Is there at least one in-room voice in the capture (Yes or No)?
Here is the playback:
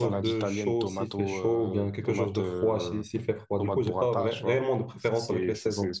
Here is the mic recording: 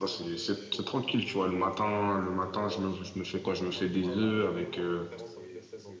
Yes